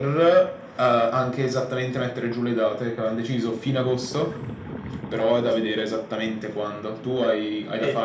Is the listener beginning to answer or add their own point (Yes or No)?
Yes